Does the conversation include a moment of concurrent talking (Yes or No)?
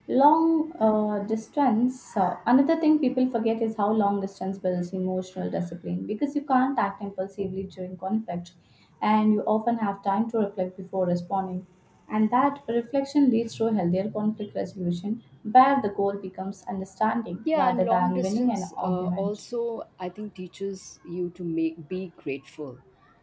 Yes